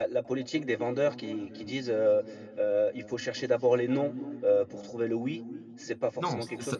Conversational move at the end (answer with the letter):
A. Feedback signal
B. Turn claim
B